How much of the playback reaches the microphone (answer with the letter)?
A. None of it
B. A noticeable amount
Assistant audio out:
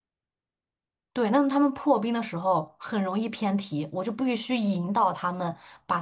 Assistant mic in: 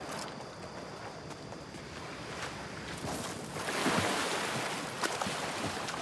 A